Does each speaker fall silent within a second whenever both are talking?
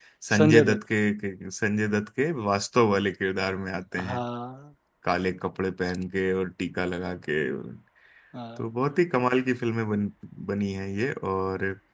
Yes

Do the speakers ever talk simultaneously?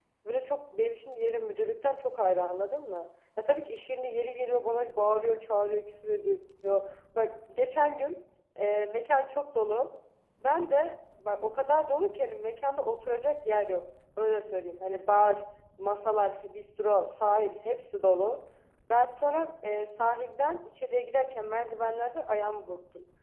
No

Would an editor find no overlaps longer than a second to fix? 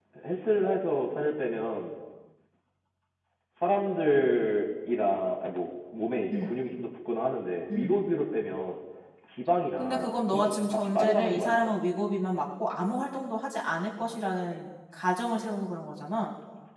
No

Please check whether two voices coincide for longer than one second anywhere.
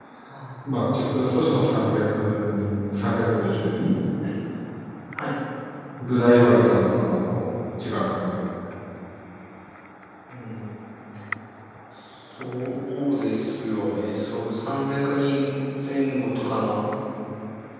No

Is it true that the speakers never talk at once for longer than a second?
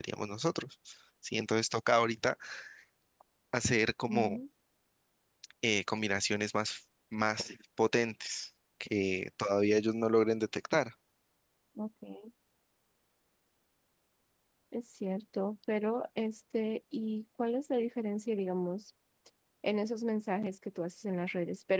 Yes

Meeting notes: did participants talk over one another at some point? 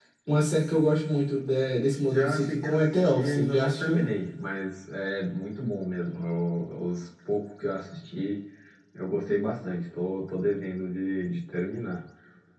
Yes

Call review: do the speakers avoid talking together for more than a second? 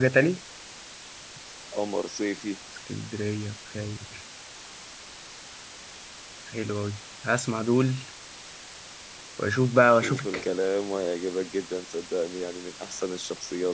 Yes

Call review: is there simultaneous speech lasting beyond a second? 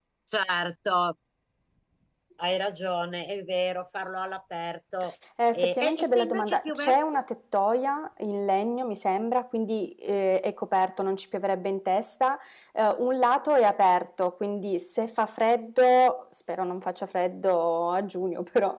Yes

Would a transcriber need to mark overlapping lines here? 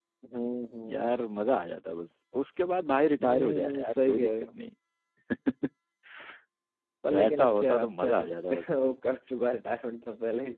Yes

